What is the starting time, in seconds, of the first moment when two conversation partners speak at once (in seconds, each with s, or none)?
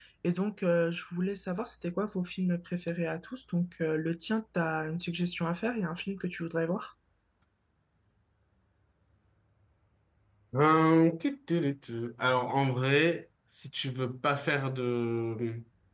none